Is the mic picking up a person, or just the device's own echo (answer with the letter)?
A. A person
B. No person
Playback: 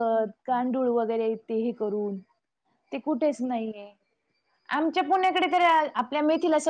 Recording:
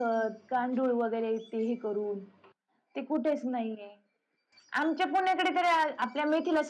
B